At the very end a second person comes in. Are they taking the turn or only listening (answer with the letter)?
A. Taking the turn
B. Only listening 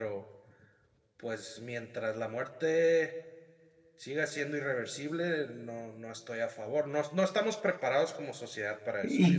A